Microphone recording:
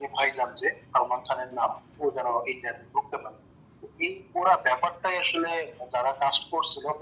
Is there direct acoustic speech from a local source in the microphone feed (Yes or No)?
No